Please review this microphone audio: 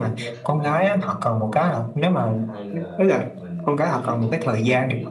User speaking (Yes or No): Yes